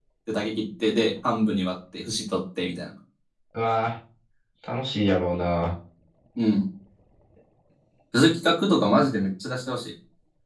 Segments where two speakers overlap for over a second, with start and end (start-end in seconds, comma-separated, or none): none